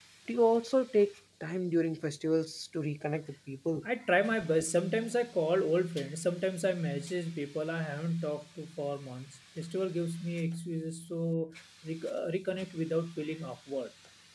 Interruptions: none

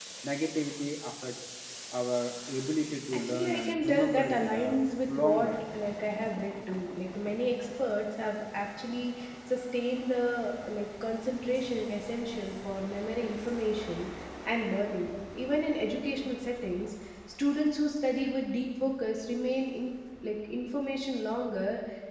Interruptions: present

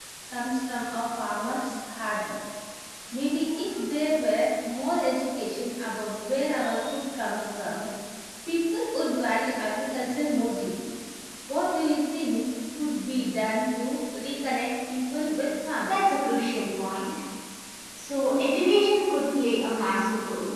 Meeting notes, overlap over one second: none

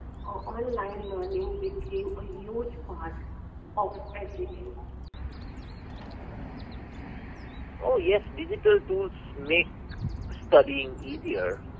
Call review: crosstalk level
none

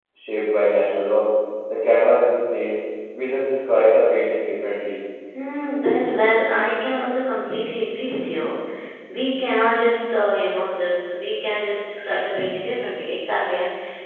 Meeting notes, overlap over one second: none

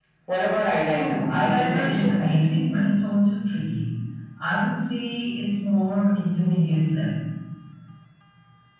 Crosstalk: present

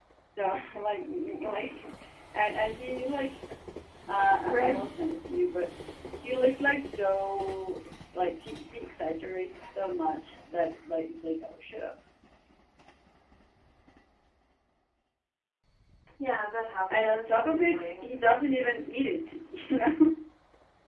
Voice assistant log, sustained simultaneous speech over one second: present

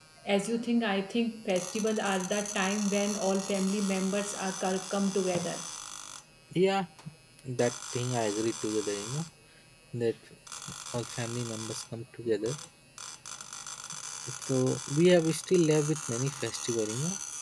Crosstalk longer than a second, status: none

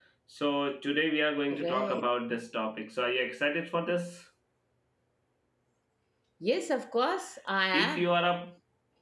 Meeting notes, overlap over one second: none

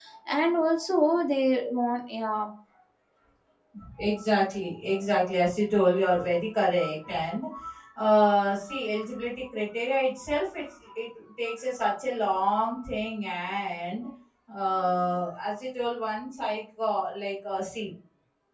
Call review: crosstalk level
none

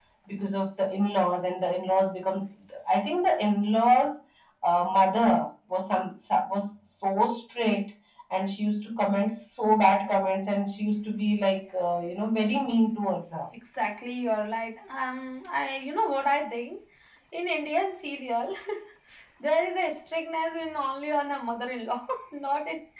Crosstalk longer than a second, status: none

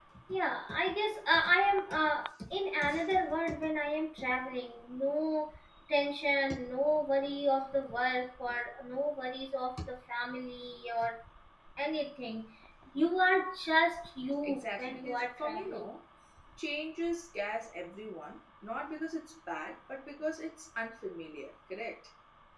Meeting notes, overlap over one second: present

